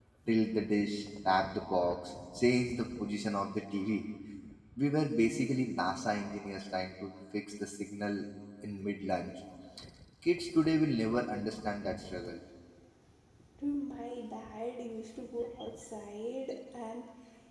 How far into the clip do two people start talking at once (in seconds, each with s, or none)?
none